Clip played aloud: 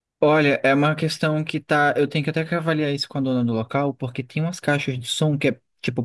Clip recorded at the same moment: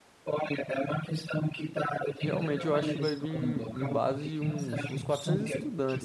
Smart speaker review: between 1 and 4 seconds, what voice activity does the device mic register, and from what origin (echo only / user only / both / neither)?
both